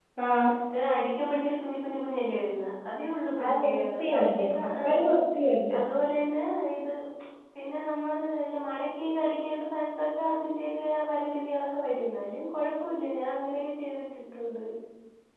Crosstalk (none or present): present